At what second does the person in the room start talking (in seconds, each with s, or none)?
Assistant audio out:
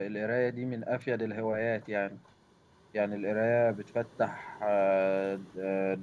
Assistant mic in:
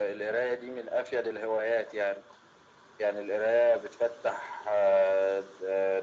none